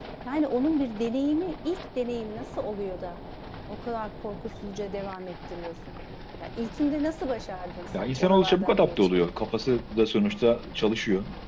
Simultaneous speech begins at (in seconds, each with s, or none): 7.9 s